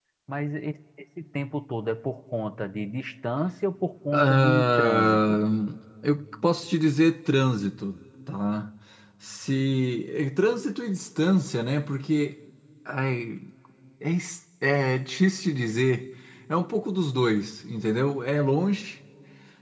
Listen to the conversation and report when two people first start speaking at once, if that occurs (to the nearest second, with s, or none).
4 s